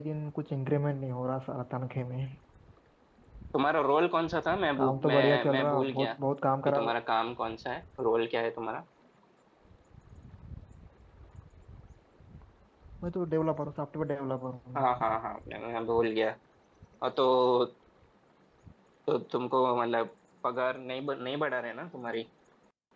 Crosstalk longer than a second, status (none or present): present